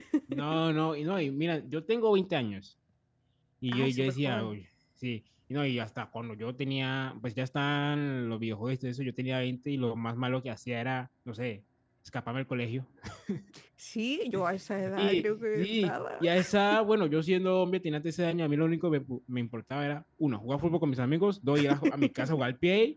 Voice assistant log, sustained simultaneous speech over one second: present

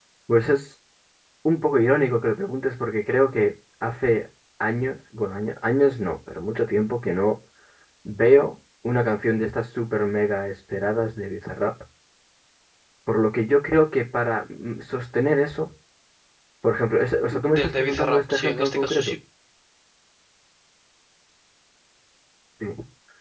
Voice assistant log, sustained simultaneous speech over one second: present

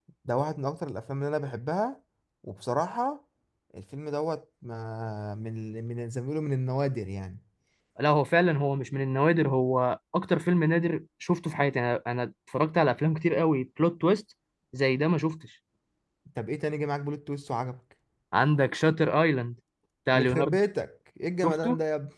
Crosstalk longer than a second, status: none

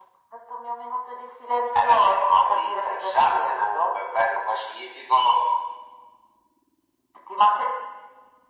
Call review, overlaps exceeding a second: present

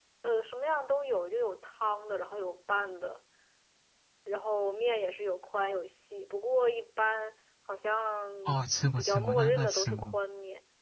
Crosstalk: present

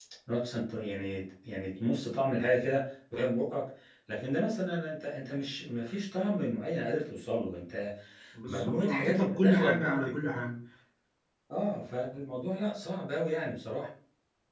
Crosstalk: present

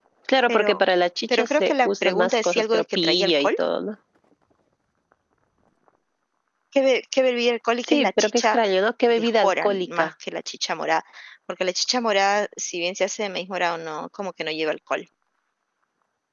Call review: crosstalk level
present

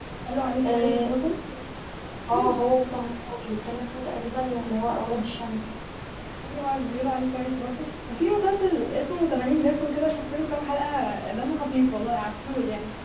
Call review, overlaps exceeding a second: none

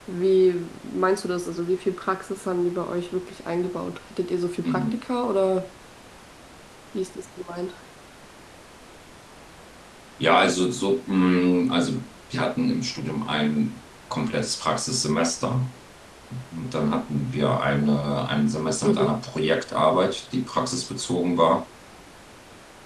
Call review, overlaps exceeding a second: none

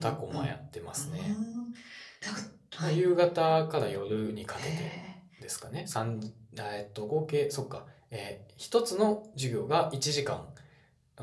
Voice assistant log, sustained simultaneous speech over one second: none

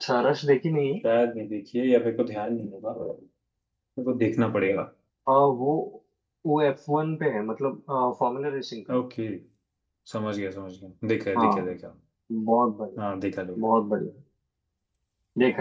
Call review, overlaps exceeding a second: none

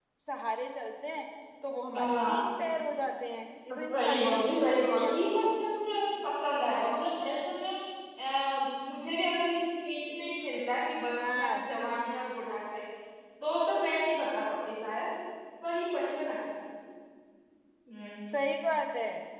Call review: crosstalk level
present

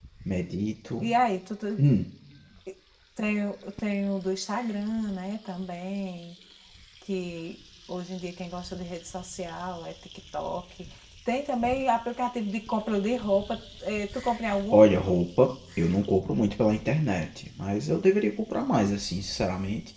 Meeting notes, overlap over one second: none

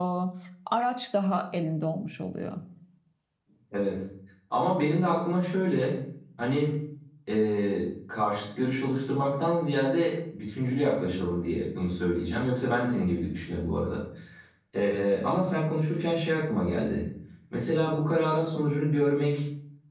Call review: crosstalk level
none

